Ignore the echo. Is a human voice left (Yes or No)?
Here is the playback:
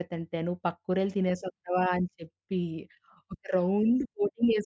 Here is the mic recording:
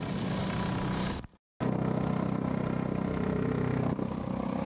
No